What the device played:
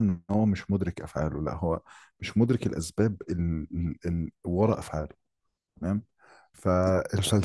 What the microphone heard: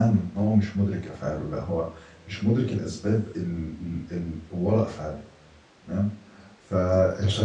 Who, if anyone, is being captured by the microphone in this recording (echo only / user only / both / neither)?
echo only